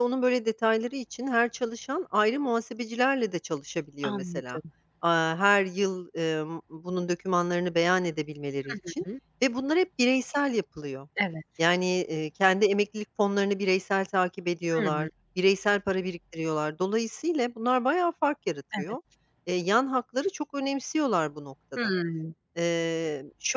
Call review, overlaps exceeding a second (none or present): none